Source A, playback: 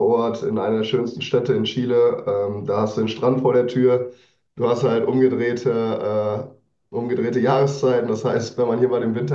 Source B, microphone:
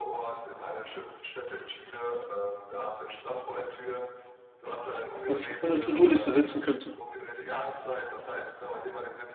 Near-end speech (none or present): present